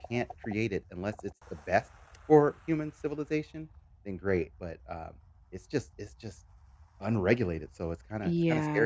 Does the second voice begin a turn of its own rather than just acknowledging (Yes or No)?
Yes